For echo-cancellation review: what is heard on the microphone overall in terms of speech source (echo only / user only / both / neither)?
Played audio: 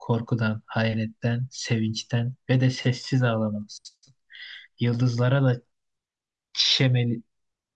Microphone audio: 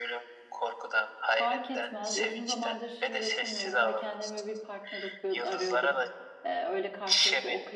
both